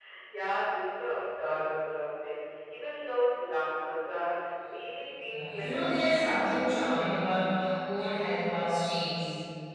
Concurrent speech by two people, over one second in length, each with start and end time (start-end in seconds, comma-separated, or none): 5.3-7.3